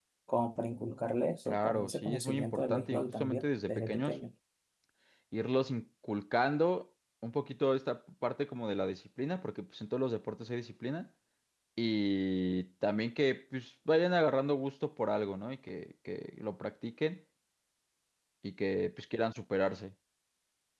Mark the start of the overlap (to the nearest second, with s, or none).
1 s